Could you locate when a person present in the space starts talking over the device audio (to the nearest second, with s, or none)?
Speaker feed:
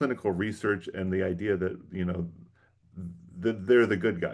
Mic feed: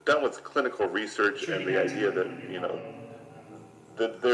1 s